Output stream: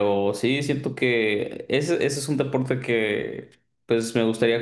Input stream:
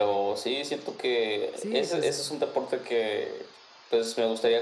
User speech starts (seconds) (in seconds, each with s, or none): 1.5 s